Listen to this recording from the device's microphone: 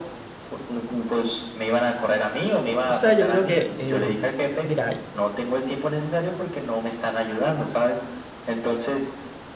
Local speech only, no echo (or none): O sea, yo creo que, eh, mira,